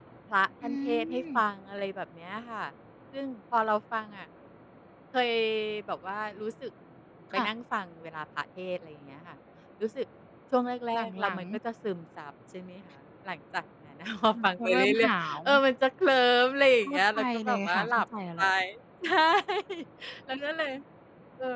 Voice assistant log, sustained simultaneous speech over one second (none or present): present